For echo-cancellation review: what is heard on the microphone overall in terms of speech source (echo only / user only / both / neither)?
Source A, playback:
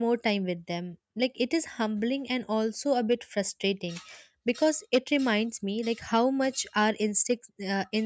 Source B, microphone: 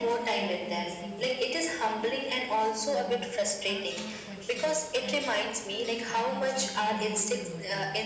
both